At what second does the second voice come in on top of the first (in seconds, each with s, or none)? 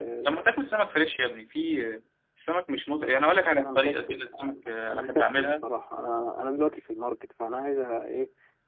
3.0 s